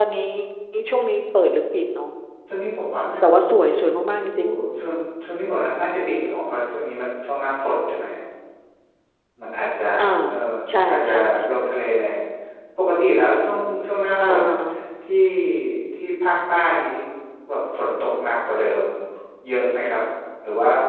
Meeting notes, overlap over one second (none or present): none